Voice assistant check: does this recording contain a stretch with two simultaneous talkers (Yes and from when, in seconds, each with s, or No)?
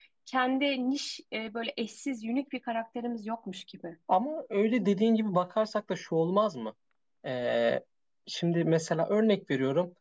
No